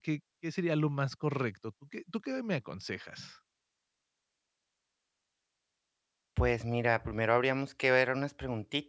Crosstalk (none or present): none